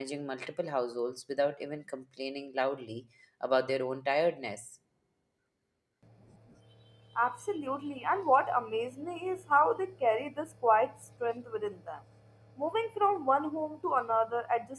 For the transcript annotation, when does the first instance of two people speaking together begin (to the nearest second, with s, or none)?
none